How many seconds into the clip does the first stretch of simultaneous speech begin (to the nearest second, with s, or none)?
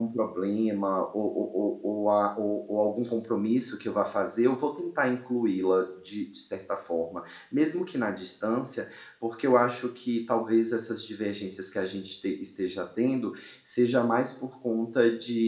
none